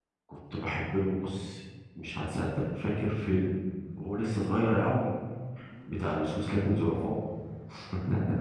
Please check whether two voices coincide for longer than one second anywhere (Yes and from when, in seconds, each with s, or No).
No